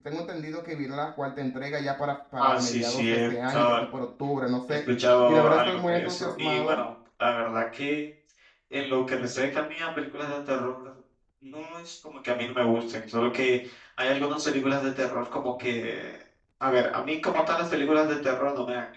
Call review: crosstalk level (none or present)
present